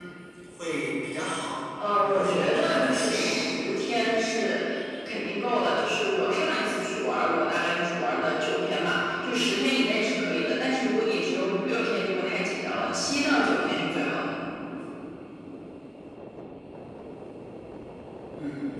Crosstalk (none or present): present